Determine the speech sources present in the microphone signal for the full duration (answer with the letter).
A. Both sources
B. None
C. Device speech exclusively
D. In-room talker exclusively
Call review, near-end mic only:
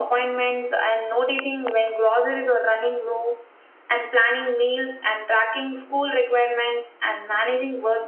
C